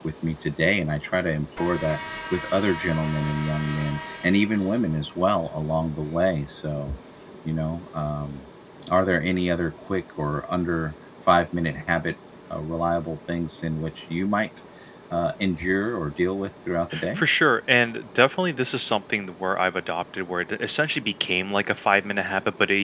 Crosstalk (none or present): none